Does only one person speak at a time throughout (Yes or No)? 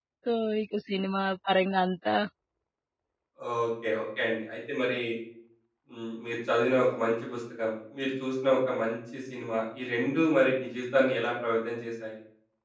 Yes